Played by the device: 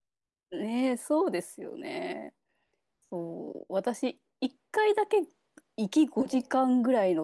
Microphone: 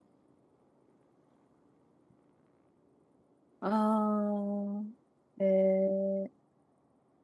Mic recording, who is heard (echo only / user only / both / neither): user only